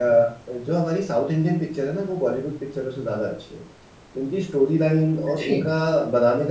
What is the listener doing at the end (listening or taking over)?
listening